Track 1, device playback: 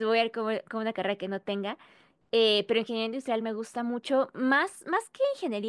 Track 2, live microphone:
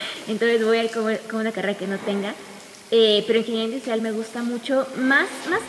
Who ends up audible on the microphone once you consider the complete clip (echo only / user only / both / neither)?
echo only